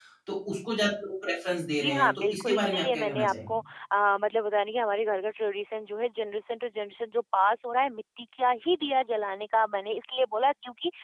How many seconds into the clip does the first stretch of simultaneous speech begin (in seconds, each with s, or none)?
1.8 s